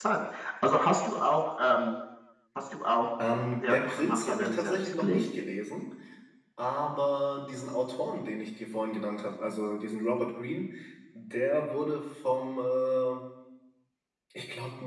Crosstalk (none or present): present